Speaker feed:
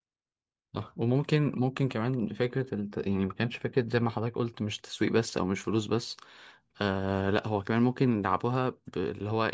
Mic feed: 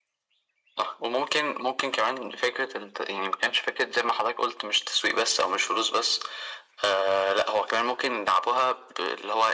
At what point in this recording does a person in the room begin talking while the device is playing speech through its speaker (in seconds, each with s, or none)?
none